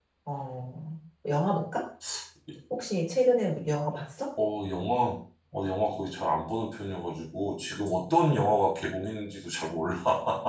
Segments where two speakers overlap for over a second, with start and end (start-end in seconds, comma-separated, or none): none